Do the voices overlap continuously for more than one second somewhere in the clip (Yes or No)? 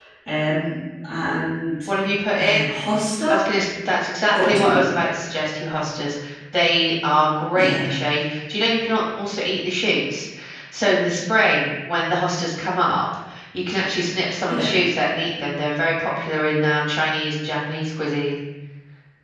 No